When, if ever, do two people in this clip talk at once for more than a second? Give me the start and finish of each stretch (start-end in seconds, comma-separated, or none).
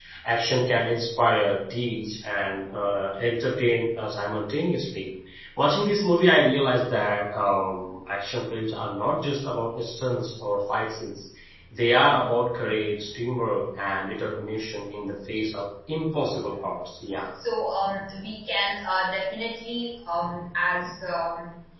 none